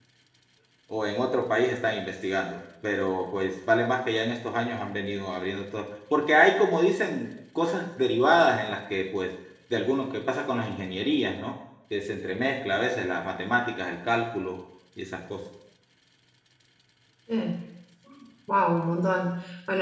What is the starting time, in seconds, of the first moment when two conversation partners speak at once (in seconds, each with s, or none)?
none